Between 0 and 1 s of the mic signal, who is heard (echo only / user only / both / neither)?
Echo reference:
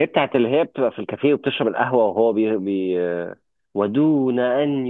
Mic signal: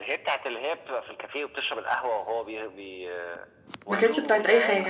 echo only